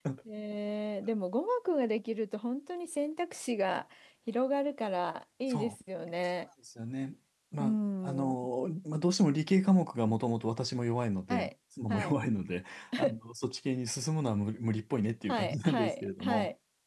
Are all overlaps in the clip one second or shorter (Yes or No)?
No